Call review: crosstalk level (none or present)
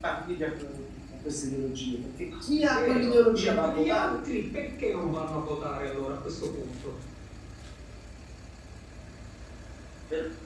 present